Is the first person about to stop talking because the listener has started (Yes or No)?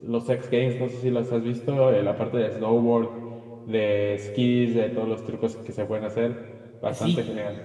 Yes